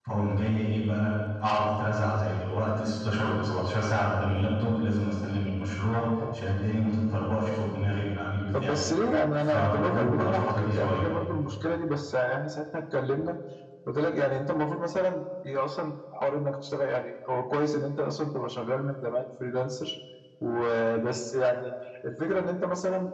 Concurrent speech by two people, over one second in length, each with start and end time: 9.4-11.0

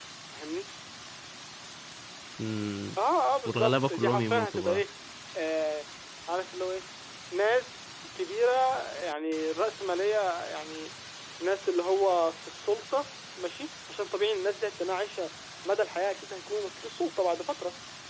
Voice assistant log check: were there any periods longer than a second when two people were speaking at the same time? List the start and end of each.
3.5-4.8

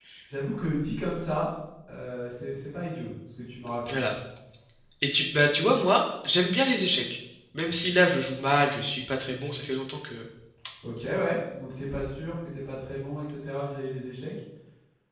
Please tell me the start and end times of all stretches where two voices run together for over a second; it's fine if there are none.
none

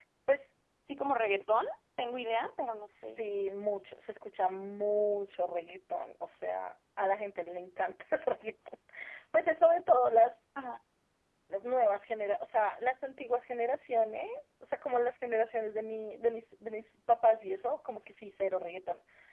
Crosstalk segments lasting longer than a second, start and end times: none

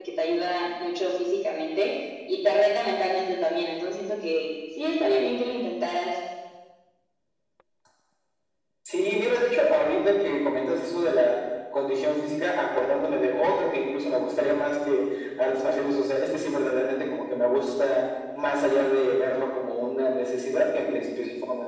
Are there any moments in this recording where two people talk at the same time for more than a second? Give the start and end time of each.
none

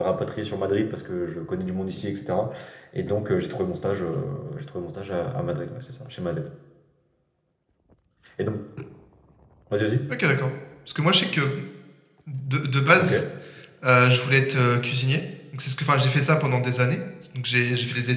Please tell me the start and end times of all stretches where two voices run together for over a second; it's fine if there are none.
none

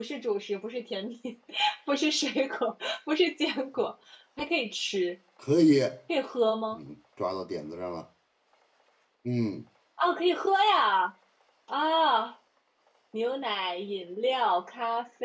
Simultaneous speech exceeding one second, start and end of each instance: none

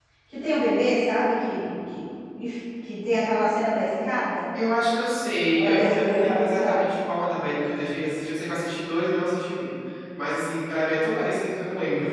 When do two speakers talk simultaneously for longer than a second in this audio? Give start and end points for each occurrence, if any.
5.5-6.8

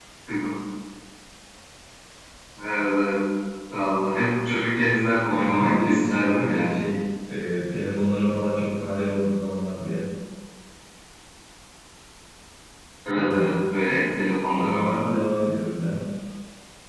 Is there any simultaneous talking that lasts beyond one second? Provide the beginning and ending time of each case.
5.3-6.8

